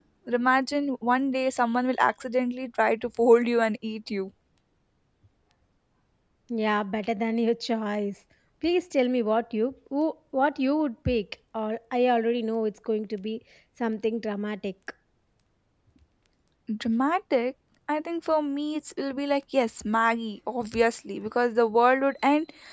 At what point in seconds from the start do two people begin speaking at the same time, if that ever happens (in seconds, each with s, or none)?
none